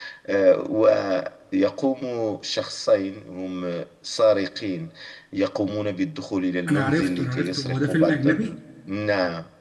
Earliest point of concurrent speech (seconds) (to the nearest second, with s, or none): 7 s